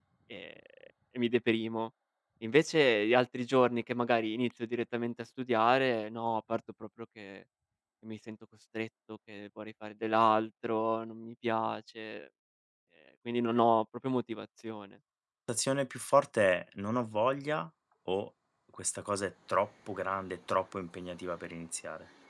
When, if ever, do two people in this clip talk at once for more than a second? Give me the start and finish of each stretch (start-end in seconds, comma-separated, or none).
none